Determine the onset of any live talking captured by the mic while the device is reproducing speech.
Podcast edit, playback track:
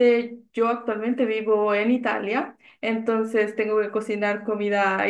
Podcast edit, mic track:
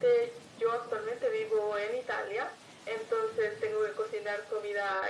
none

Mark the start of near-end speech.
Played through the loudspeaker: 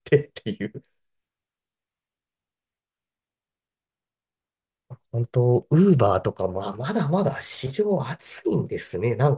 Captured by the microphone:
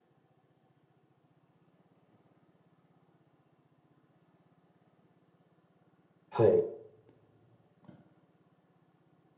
6.3 s

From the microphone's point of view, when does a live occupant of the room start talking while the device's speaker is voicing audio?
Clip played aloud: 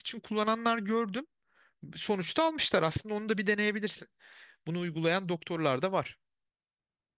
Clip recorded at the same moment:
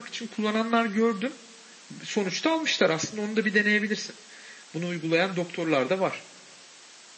none

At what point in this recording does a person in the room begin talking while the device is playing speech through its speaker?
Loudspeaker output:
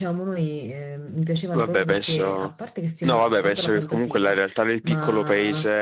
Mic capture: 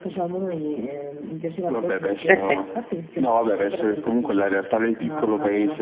2.2 s

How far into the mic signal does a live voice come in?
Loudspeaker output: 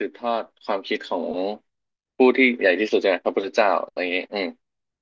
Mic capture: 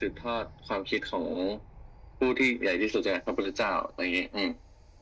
none

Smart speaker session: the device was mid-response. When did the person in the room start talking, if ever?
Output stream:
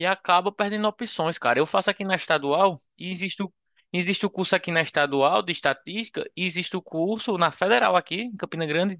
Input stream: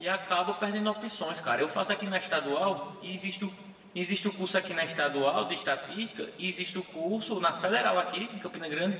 none

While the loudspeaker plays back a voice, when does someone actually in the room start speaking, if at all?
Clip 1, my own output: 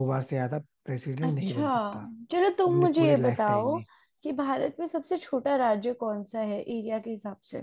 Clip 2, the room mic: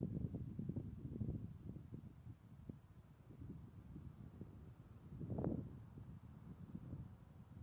none

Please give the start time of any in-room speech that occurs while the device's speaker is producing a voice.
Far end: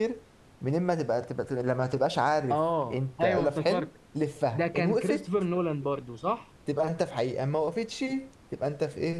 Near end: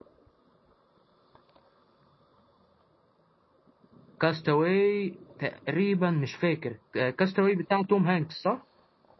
4.2 s

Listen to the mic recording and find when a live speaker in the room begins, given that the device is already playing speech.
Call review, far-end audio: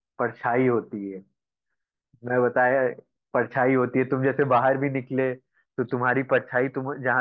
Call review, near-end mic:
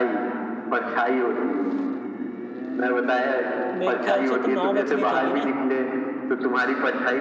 3.8 s

